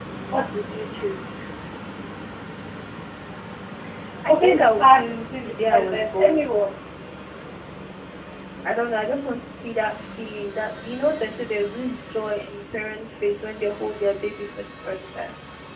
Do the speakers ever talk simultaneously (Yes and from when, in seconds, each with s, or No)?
Yes, from 4.3 s